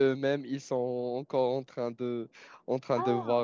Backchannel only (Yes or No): Yes